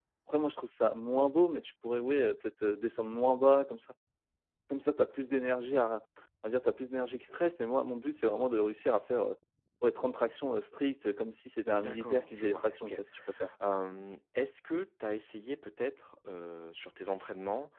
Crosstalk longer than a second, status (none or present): present